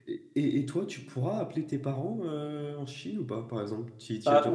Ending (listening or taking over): taking over